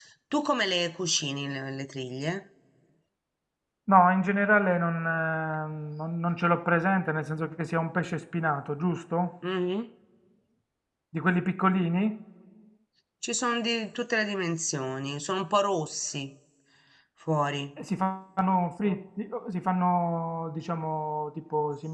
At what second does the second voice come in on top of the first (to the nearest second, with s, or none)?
none